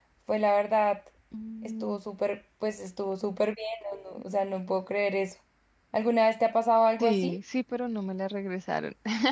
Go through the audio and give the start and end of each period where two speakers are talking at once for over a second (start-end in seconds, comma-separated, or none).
none